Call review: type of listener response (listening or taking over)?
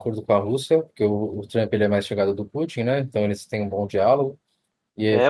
taking over